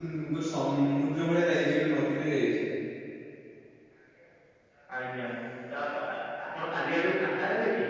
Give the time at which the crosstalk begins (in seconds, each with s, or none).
none